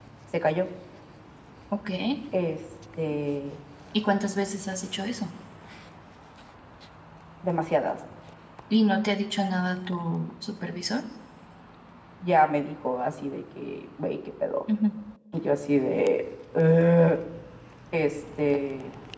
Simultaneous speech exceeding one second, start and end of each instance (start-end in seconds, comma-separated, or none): none